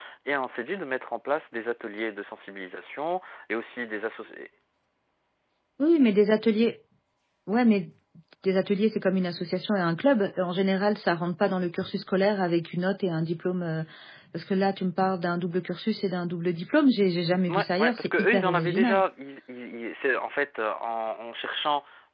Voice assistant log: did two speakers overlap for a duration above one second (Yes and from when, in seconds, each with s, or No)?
Yes, from 17.5 s